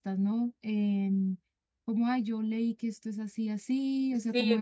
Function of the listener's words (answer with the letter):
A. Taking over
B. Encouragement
A